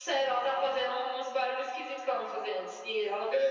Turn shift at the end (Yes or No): Yes